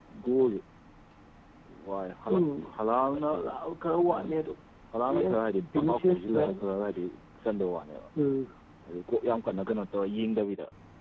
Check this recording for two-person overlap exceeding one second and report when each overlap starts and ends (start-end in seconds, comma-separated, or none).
5.1-6.4